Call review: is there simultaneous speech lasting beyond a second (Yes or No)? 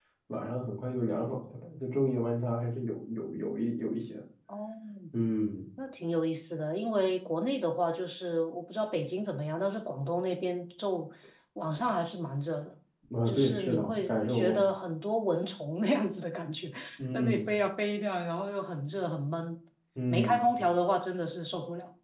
Yes